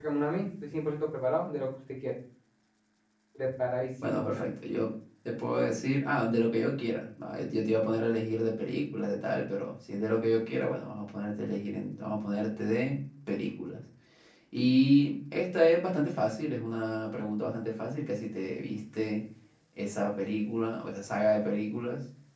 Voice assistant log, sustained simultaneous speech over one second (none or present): none